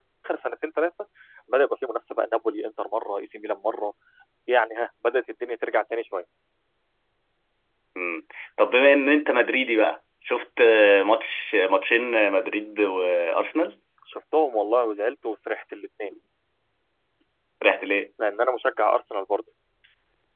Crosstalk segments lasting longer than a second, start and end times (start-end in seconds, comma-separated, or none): none